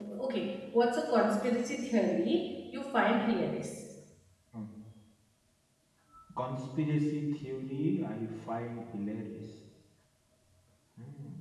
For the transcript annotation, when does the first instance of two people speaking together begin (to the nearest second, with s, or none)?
none